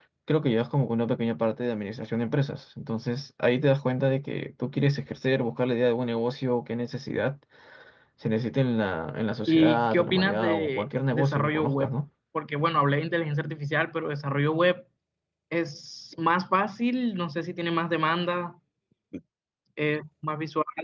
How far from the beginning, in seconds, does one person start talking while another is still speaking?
9.5 s

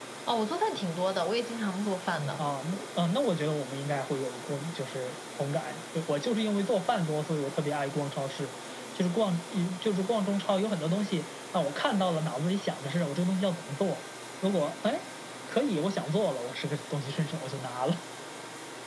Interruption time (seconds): none

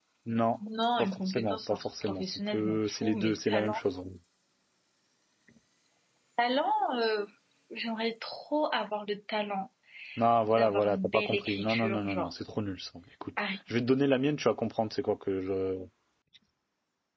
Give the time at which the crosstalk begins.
1.0 s

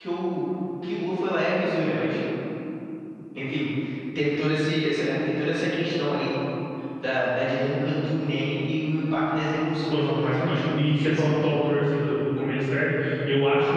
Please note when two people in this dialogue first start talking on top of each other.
9.9 s

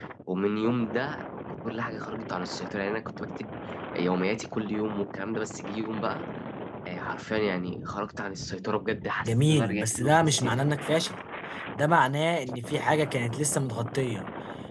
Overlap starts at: 9.2 s

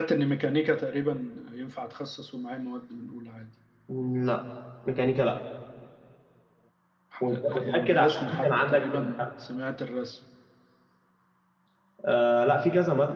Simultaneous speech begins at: 7.3 s

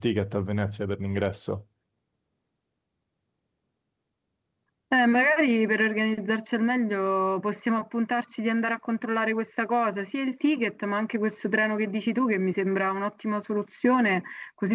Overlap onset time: none

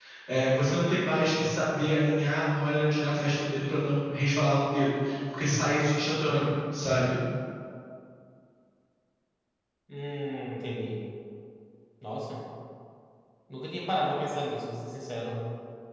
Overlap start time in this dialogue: none

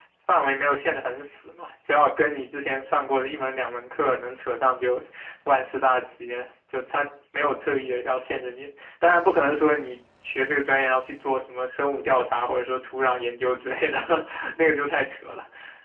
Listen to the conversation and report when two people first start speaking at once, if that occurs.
none

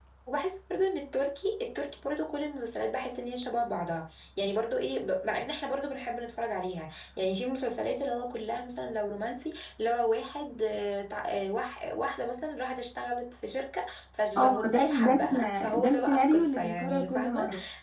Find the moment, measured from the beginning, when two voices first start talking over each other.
14.3 s

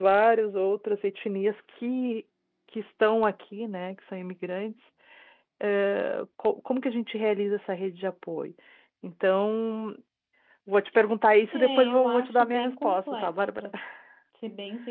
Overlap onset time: 11.5 s

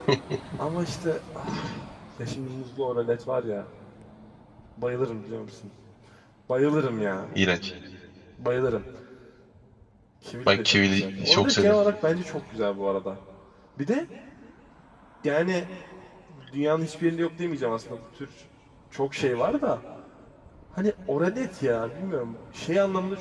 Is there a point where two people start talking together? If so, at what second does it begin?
10.5 s

